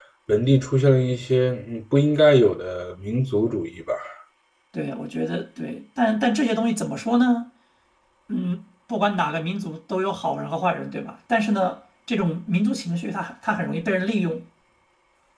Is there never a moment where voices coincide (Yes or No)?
Yes